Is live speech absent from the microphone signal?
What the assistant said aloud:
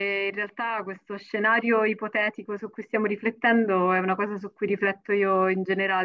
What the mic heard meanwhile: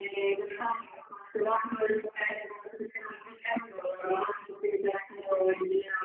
Yes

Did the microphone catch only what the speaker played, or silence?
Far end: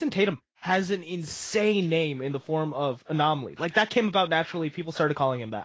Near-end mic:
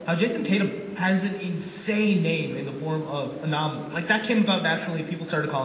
Yes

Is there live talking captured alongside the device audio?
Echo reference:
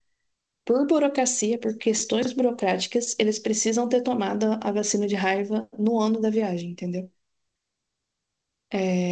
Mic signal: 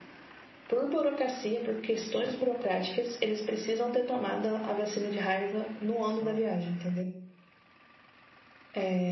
Yes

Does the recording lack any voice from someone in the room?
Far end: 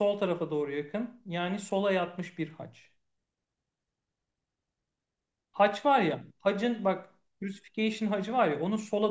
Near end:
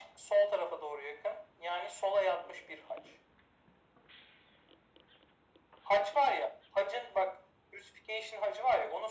Yes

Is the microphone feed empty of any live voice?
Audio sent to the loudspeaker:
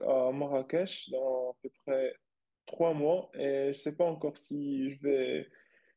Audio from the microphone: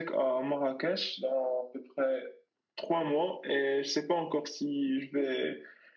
Yes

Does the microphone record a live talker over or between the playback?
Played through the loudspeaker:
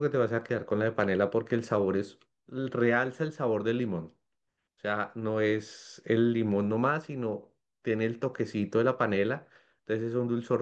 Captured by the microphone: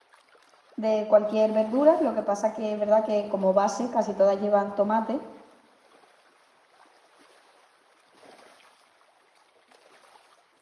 Yes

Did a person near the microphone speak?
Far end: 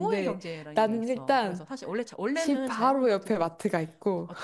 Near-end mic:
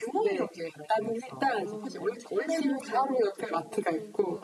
Yes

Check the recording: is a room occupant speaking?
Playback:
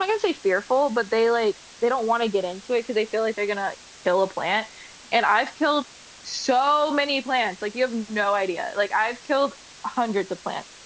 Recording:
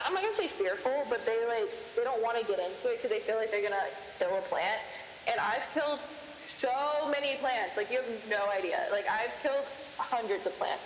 No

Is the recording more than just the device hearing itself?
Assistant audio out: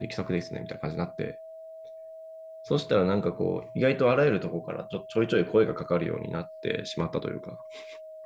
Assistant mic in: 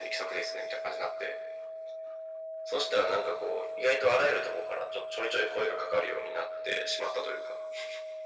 No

